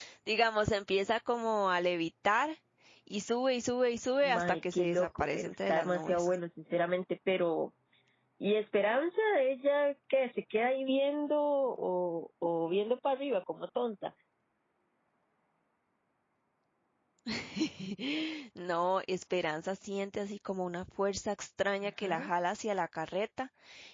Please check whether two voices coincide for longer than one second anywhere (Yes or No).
Yes